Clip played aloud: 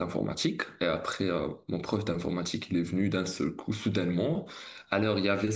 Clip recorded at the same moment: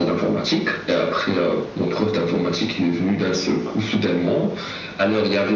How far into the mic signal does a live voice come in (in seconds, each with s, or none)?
none